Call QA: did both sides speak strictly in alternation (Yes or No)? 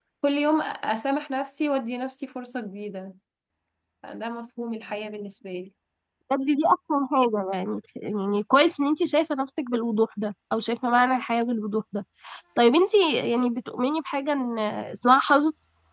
Yes